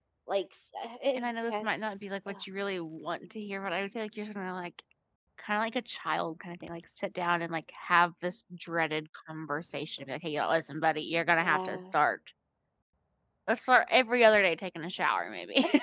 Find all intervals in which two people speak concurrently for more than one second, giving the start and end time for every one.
1.2-2.4

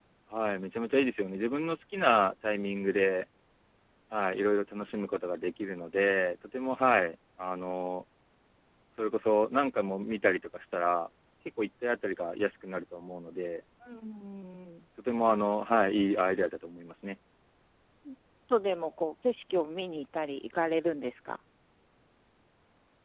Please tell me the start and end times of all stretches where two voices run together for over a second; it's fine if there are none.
none

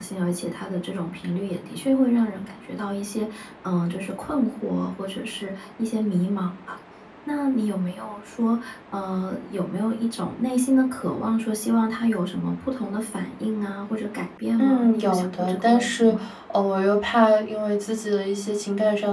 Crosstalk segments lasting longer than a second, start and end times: 14.6-16.1

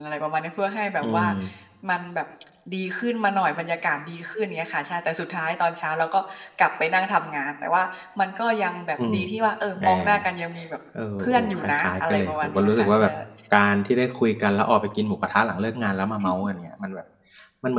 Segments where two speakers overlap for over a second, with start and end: 11.5-13.0

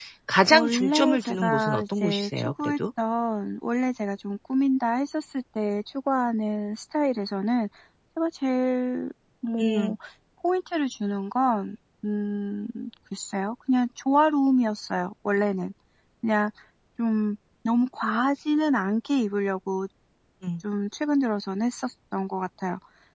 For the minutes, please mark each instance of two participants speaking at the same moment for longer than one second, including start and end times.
0.5-2.7

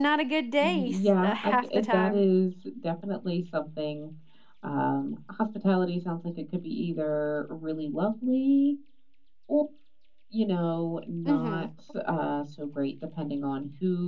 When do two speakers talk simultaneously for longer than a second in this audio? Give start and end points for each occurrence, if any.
0.6-2.2

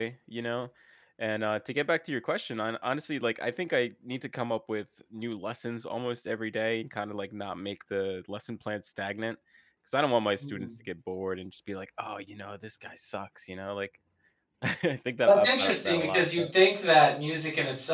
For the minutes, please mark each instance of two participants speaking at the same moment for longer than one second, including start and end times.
15.3-16.5

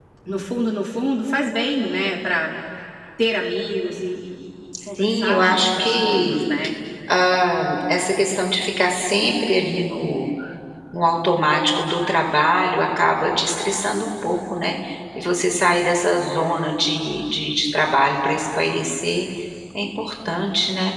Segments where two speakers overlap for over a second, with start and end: 5.0-6.4

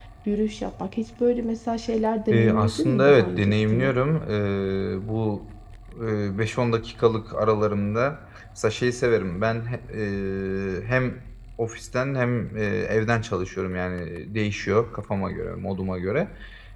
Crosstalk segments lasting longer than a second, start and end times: 2.3-3.9

